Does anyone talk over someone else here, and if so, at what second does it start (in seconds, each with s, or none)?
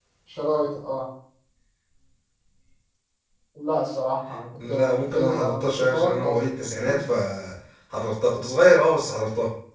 4.6 s